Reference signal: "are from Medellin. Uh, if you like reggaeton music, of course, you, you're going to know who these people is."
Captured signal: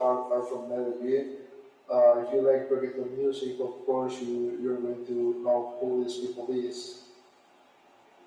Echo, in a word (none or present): present